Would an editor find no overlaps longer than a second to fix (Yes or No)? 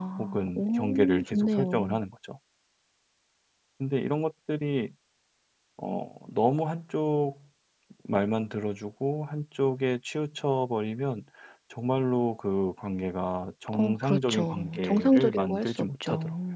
No